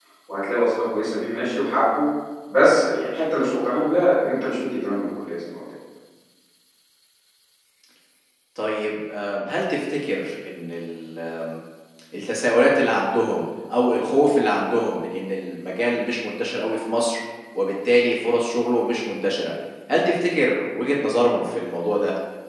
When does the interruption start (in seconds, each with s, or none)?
none